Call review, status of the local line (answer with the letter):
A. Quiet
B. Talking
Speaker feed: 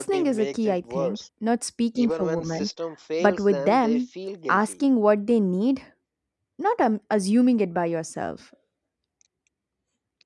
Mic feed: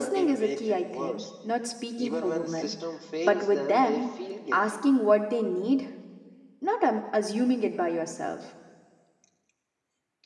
A